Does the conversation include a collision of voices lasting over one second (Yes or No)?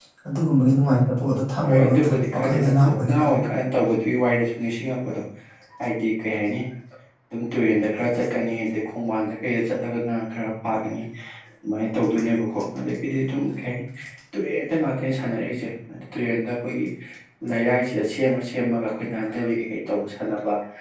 Yes